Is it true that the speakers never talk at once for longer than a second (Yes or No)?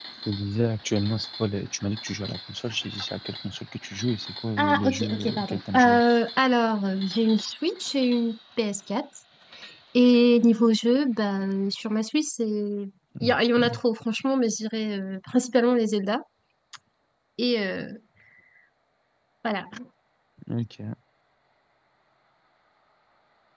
No